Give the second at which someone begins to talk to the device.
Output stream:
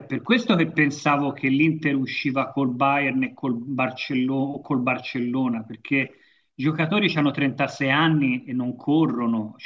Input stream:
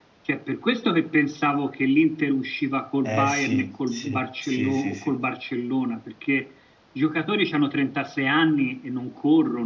3.0 s

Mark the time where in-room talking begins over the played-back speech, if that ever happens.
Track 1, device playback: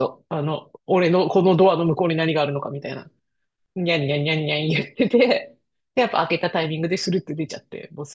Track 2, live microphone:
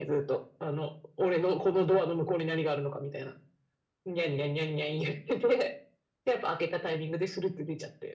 none

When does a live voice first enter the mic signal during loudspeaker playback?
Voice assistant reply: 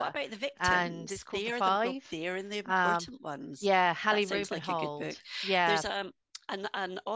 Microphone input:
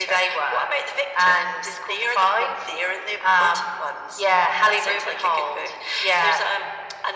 none

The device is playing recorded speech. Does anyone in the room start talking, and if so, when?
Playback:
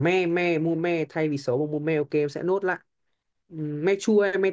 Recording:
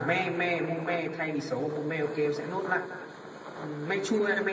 none

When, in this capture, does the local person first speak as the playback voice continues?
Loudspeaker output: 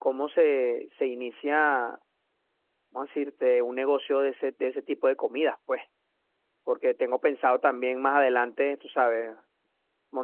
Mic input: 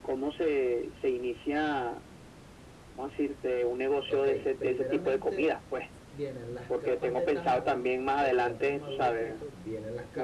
4.0 s

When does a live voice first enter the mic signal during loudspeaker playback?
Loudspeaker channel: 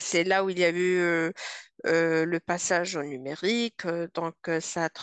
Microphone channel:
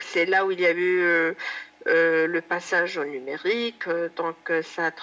none

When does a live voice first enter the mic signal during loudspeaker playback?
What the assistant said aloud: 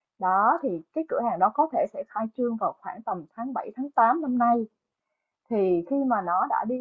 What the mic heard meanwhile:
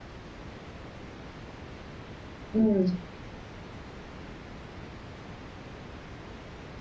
2.5 s

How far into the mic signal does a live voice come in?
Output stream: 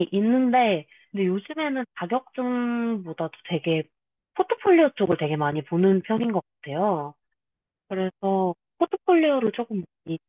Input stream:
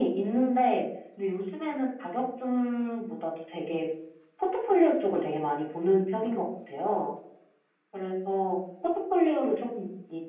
none

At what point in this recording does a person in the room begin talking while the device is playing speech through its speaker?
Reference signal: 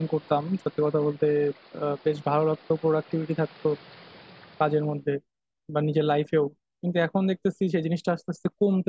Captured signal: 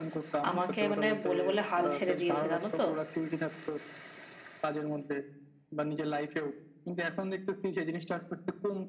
0.5 s

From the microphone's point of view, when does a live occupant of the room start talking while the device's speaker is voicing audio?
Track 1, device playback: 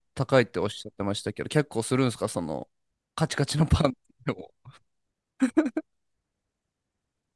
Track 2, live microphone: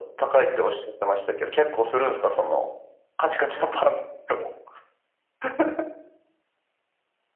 none

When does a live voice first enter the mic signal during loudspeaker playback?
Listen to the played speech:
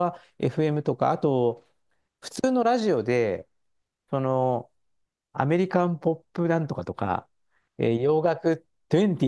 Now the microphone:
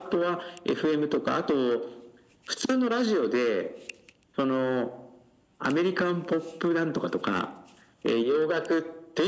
none

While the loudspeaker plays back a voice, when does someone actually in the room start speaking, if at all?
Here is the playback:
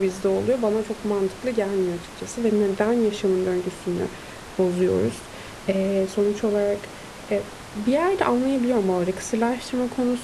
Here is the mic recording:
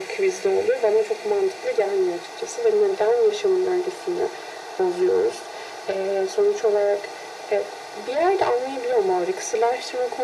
none

